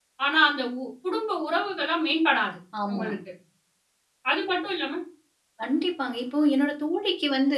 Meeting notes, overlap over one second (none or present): none